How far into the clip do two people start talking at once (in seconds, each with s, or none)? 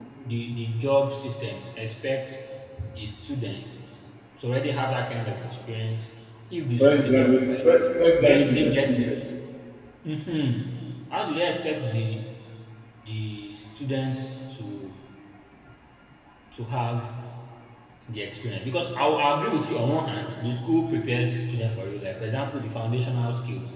6.8 s